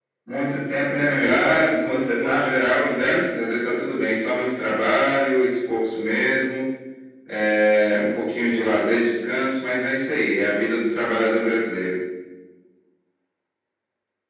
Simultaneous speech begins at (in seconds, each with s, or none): 1.2 s